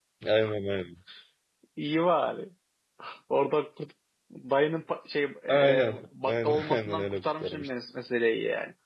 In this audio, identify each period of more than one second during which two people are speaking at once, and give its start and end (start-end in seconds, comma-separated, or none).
5.5-7.7